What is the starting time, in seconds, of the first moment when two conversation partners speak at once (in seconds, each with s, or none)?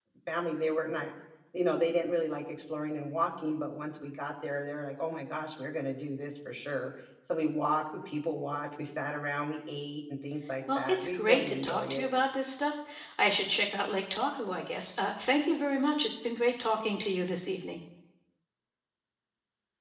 10.7 s